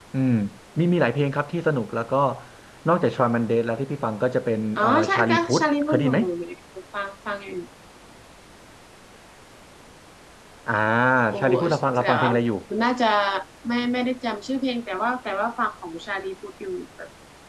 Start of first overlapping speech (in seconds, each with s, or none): 4.8 s